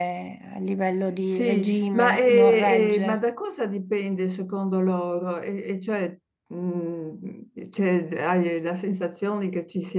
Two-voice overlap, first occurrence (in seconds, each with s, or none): 1.3 s